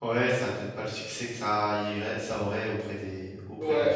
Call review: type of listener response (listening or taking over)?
taking over